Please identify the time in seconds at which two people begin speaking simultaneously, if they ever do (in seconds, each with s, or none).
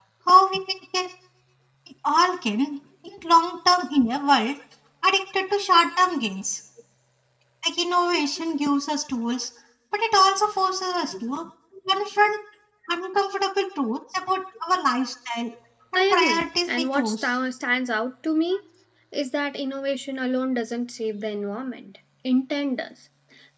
15.9 s